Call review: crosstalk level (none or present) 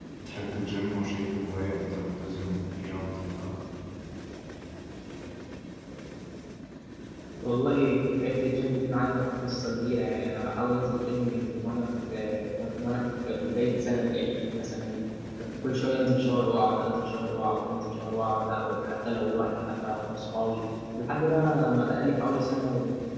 none